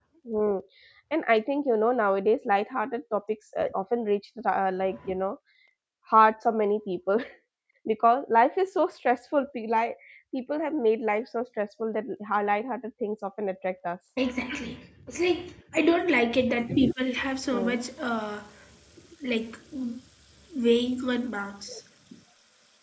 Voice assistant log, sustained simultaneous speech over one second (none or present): none